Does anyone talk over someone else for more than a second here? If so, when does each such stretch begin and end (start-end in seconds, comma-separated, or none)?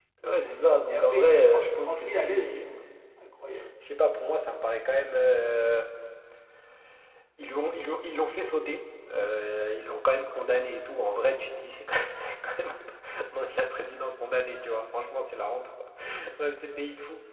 0.9-2.5